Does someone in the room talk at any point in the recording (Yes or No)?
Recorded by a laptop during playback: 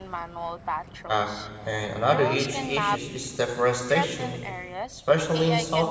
Yes